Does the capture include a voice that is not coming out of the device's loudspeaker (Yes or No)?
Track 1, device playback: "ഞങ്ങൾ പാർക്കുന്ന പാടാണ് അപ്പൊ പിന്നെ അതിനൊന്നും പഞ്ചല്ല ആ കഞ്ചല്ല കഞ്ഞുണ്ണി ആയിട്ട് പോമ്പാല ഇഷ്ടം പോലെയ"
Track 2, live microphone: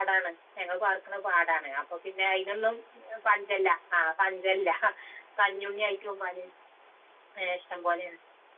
No